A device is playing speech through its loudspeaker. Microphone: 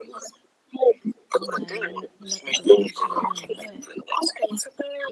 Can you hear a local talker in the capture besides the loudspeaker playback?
Yes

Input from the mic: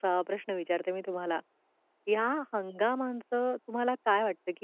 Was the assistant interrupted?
Yes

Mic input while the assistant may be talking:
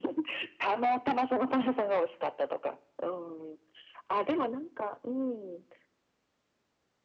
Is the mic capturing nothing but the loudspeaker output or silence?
Yes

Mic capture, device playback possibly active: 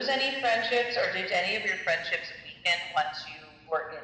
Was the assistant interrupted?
No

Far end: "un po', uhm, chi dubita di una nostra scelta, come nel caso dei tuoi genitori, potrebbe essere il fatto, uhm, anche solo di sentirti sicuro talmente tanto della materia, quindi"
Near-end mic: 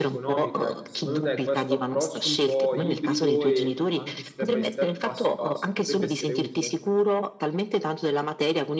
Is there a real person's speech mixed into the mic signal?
Yes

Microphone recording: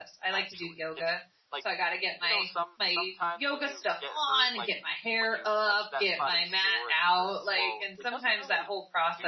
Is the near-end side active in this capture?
Yes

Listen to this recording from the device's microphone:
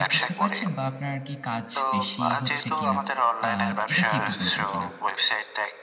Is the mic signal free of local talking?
No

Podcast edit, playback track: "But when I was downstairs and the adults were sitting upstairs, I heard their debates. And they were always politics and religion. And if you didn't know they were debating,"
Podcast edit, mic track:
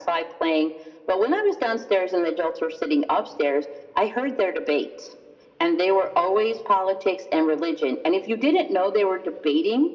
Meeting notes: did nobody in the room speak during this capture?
Yes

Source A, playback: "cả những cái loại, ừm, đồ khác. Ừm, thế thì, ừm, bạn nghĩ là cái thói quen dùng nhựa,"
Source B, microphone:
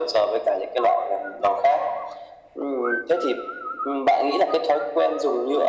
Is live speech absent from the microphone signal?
Yes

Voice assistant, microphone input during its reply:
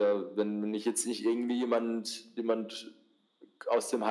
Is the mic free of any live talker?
Yes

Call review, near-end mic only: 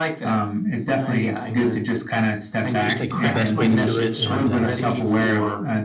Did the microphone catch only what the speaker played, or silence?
No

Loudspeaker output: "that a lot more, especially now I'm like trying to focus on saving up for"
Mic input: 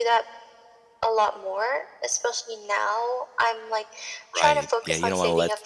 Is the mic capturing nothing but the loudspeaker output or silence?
No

